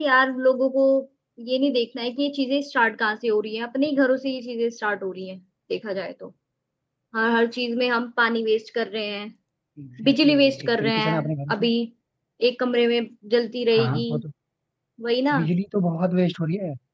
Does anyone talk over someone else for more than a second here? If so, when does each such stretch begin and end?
10.0-11.7

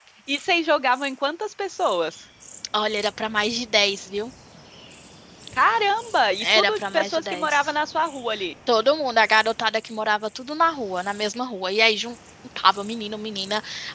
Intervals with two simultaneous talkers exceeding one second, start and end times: 6.4-7.7

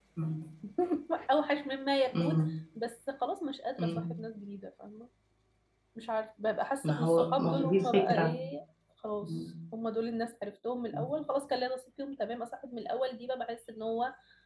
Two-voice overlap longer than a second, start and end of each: 6.8-8.4

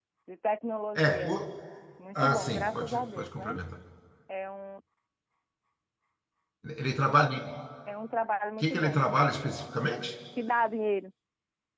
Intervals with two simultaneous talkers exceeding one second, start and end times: 2.2-3.6

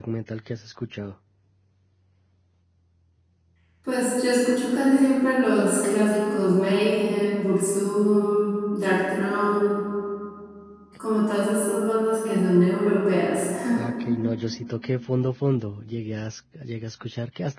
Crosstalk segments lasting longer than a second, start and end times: none

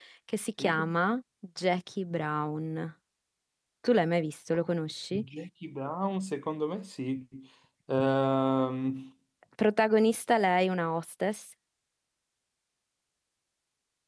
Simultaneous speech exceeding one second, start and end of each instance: none

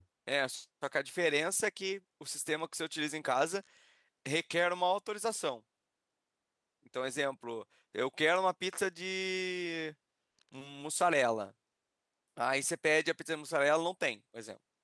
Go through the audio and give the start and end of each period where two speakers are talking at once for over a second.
none

